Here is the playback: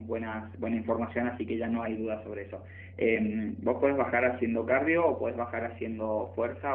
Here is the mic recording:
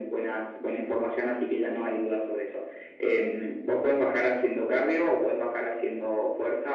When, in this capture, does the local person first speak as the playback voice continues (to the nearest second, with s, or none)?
none